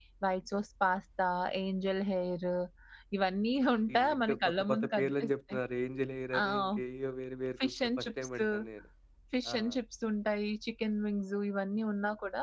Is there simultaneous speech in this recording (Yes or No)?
Yes